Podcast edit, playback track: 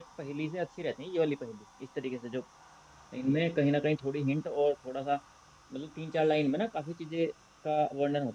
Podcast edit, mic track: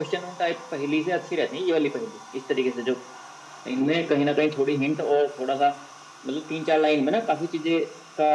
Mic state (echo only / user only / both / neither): echo only